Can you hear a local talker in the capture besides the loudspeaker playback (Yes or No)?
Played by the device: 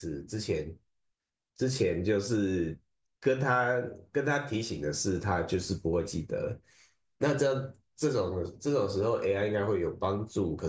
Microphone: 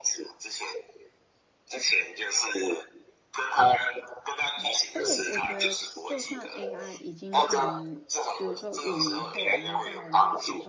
Yes